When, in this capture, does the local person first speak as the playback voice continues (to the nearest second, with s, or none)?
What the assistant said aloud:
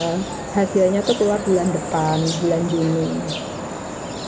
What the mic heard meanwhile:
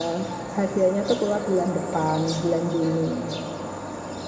none